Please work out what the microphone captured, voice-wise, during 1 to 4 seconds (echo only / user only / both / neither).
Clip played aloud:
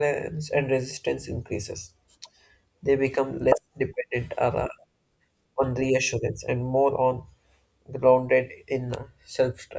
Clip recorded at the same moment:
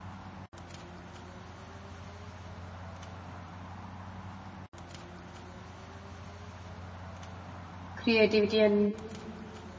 neither